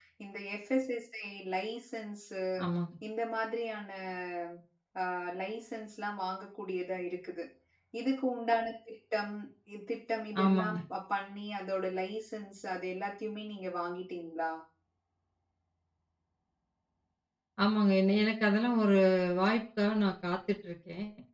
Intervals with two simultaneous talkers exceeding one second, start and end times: none

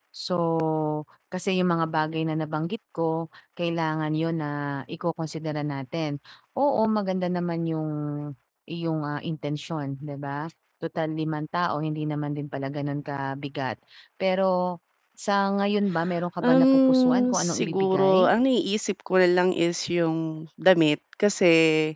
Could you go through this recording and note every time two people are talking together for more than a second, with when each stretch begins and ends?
16.4-18.3

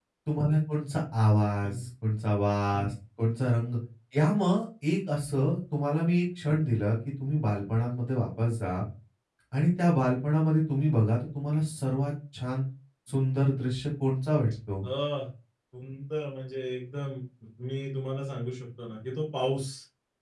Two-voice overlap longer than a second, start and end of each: none

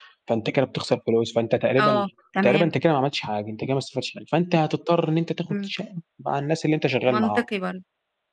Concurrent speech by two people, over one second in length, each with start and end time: none

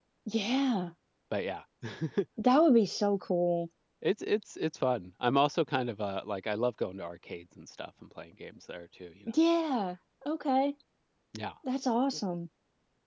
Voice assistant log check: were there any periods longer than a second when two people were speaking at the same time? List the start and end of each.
none

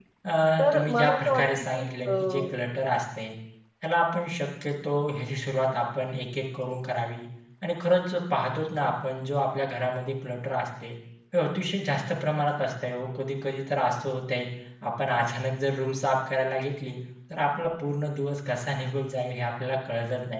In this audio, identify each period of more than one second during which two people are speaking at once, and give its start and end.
0.6-2.5

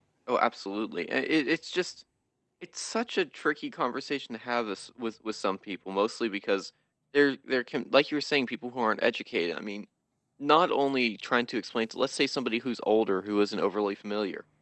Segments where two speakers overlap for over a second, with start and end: none

